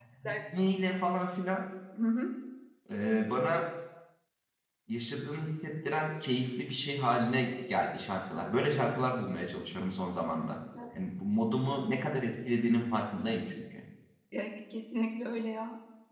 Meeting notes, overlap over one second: none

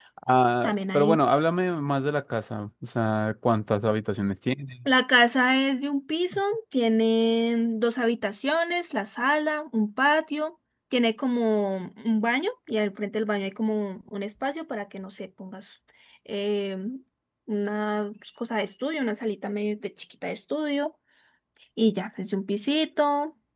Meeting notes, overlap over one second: none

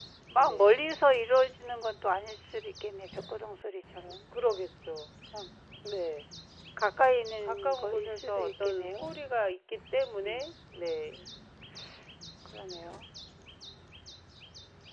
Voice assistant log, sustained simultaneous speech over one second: present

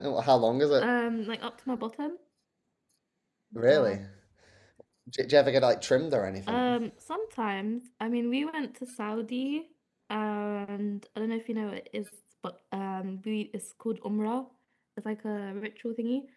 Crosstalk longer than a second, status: none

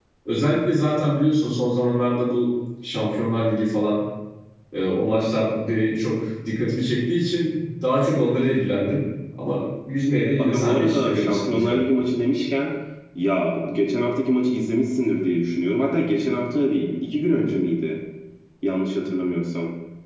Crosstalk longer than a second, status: present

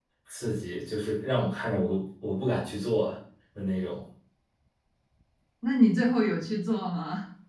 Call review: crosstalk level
none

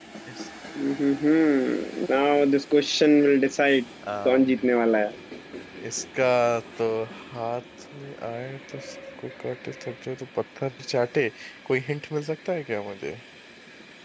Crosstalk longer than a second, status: none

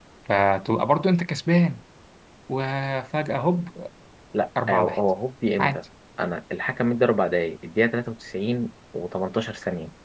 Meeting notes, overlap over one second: none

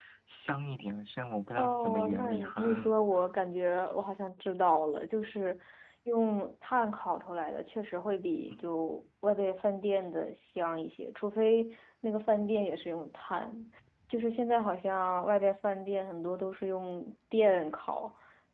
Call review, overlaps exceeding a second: present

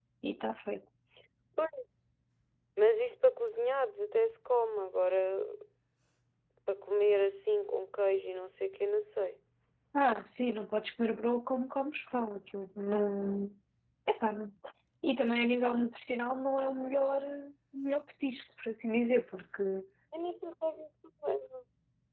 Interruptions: none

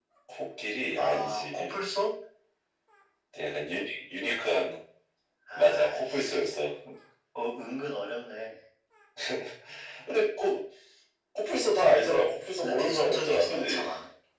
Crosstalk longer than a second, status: present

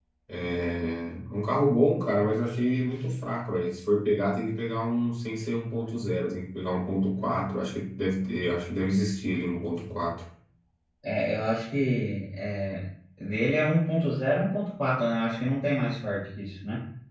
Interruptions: none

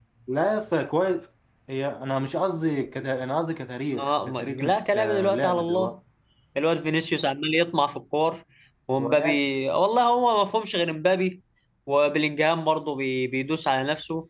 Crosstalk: present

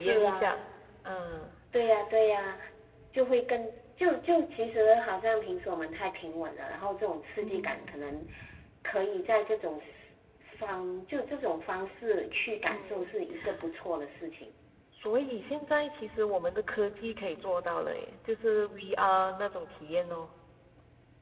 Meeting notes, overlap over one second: none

